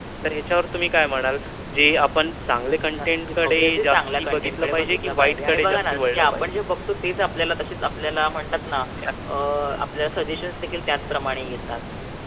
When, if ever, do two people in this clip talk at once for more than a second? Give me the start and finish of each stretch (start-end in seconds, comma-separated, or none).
3.0-6.5